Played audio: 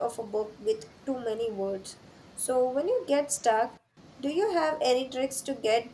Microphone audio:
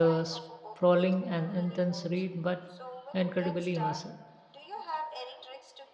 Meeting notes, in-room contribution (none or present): present